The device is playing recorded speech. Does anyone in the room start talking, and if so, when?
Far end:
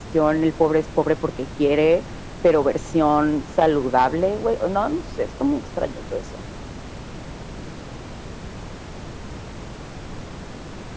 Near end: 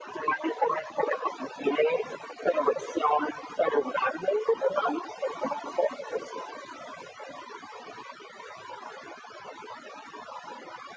none

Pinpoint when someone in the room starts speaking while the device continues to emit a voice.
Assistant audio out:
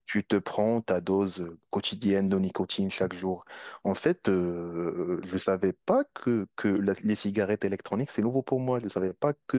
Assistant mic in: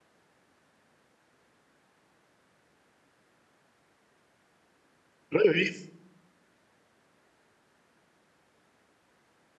5 s

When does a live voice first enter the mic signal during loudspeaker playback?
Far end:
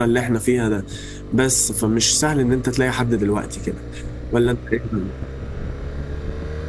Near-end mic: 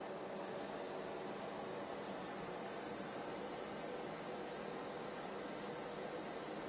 none

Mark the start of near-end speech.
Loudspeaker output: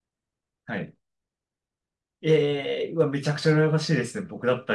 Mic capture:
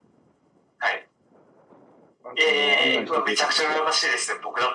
2 s

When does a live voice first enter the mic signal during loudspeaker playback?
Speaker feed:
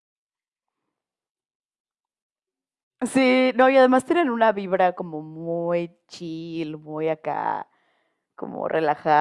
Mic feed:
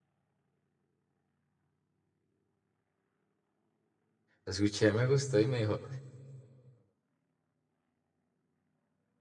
4 s

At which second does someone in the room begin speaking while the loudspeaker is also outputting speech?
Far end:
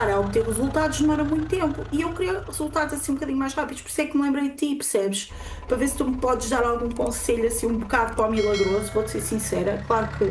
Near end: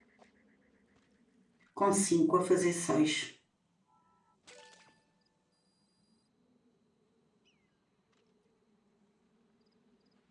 2 s

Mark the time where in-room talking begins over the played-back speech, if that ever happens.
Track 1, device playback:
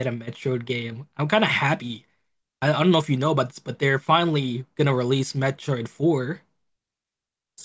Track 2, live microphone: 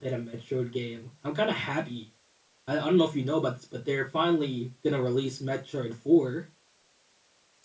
none

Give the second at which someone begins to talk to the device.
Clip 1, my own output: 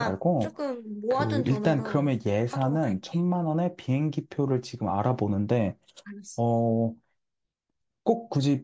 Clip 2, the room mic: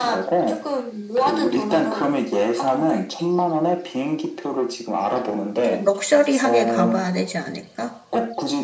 6 s

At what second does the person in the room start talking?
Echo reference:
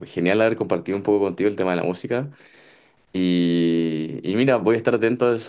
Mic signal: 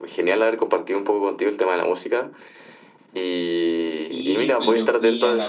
4 s

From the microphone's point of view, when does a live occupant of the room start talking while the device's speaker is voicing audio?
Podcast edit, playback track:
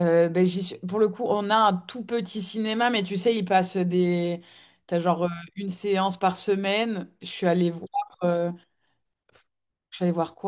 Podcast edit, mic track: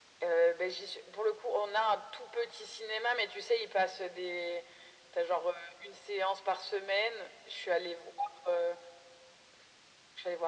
none

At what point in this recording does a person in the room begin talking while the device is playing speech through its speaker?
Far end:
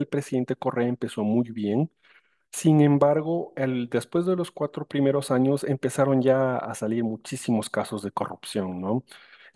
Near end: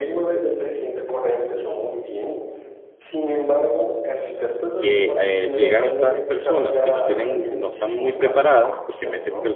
5 s

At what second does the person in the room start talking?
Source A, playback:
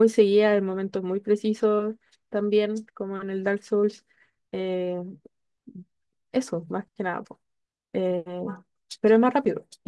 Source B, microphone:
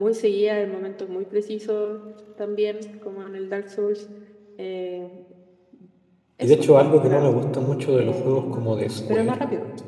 6 s

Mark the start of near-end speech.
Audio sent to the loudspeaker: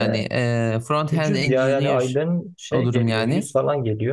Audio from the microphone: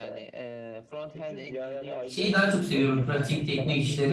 2 s

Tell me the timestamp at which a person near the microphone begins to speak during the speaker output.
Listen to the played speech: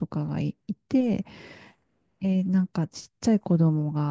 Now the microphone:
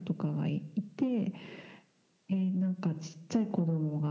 none

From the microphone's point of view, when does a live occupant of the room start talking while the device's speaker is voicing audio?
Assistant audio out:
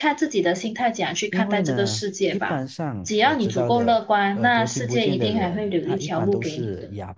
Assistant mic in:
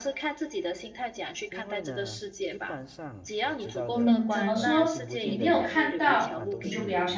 4 s

